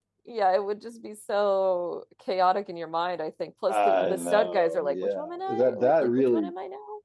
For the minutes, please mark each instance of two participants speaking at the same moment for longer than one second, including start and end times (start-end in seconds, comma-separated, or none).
3.7-6.5